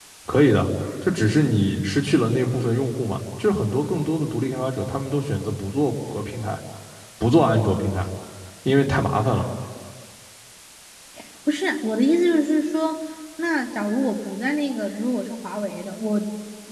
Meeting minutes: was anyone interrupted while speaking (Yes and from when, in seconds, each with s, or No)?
No